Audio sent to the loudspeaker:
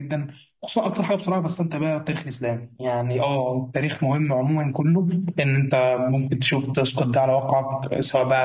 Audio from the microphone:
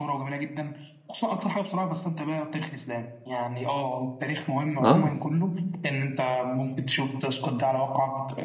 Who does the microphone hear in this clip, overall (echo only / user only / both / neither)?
both